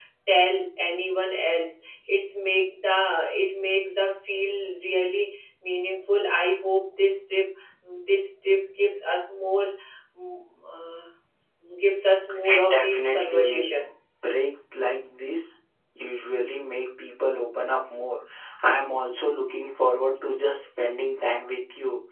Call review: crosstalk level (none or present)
present